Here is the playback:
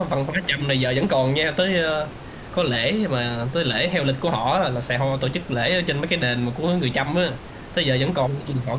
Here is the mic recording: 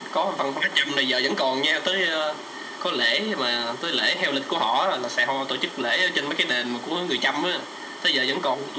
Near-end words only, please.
none

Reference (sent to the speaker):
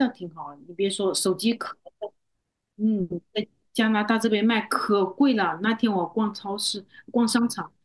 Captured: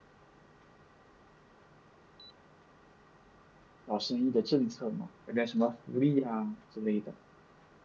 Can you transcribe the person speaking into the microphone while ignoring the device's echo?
小生意的政策吗？有点什么福利啊之类的？

